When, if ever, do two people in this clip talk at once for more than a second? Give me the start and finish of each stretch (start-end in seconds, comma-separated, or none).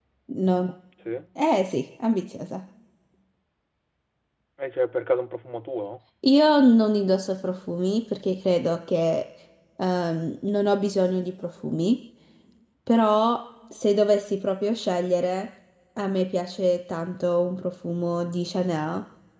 none